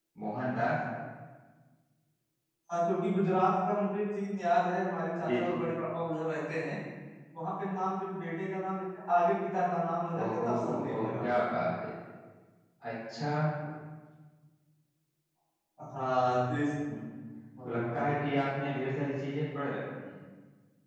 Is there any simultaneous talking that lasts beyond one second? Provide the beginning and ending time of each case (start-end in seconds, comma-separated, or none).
10.2-11.6